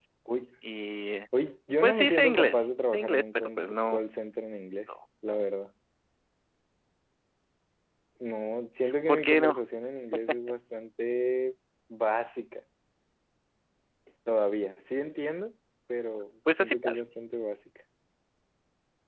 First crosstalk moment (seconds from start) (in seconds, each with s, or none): 1.8 s